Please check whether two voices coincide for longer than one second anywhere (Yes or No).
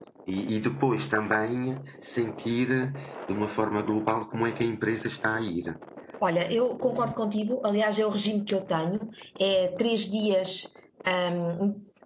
No